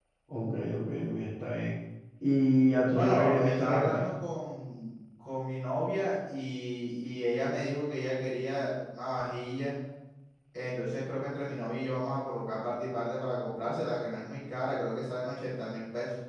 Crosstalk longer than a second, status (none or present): present